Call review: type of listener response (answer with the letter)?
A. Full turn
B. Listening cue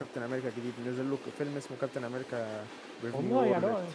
A